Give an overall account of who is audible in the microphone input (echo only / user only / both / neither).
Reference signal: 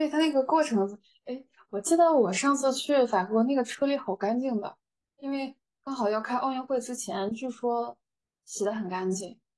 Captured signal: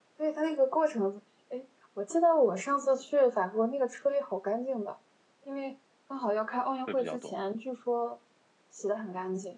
both